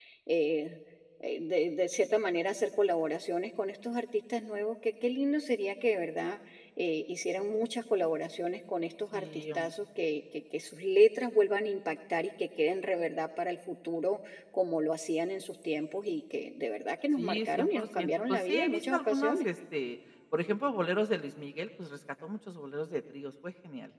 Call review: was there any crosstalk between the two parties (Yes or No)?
Yes